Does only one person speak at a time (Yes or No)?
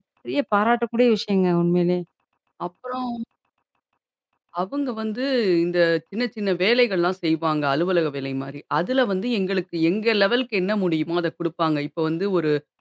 Yes